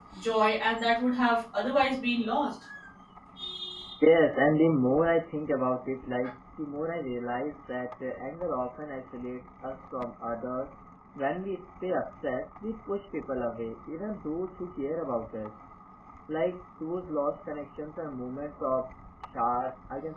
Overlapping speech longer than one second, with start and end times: none

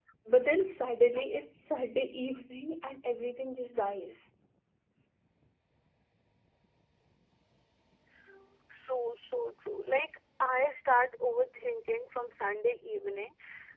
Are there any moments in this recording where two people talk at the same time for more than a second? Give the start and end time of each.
none

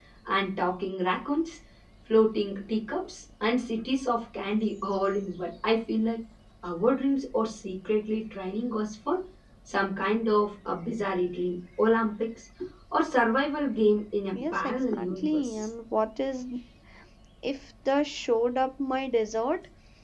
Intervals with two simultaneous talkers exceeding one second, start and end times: 14.3-15.7

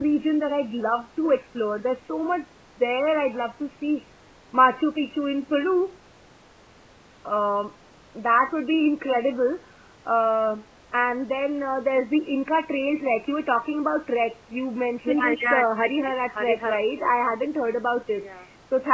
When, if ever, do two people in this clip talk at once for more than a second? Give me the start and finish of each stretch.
15.0-17.1

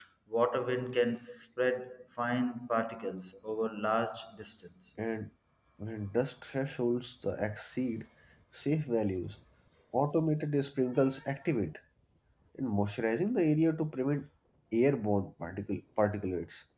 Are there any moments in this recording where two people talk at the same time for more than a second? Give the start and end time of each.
none

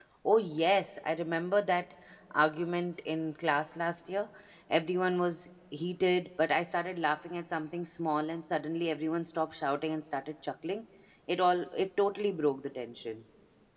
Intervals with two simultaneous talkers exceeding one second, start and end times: none

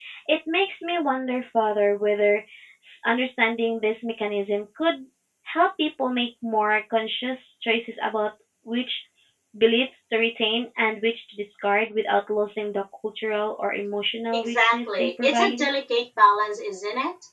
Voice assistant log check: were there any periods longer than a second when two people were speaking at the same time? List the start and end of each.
14.3-15.6

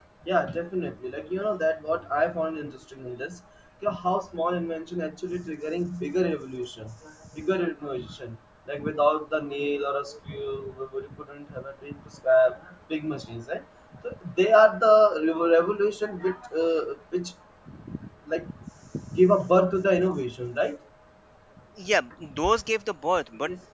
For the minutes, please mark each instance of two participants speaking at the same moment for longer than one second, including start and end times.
none

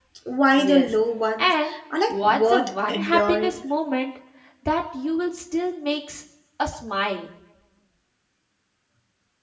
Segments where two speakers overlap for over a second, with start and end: 2.1-3.6

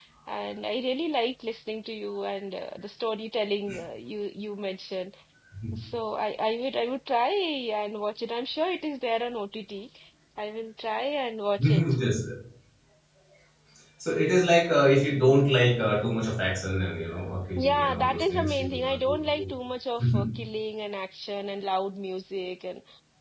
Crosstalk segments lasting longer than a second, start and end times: 17.6-19.5

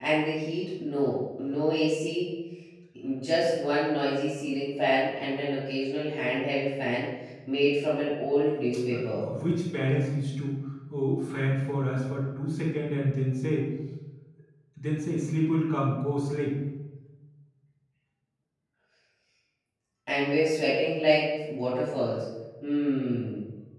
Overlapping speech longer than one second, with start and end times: none

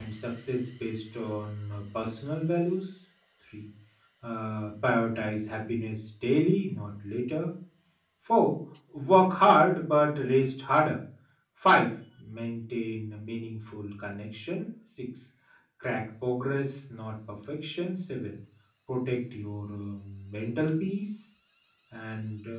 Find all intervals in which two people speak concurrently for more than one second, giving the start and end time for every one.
none

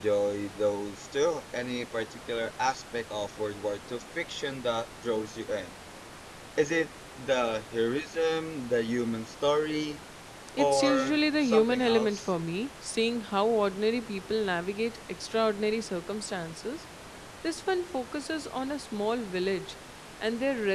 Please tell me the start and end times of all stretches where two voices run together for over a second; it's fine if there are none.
10.6-12.3

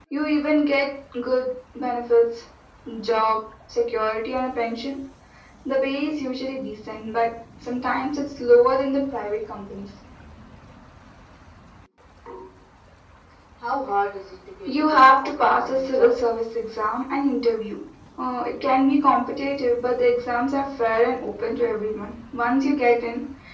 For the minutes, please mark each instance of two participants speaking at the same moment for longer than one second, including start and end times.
14.7-16.1

